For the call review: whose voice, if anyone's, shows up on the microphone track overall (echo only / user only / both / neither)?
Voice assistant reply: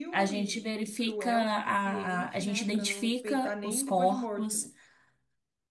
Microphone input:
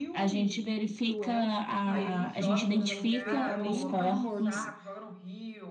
both